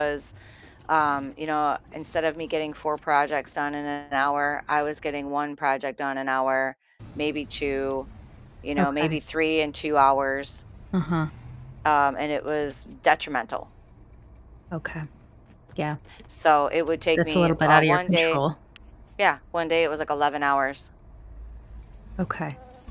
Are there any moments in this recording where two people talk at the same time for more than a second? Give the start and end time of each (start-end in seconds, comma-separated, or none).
17.2-18.4